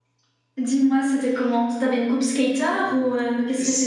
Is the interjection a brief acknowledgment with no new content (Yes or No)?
No